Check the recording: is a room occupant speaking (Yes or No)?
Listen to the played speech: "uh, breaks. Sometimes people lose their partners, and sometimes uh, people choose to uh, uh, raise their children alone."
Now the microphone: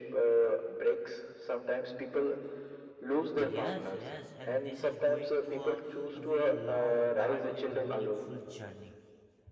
Yes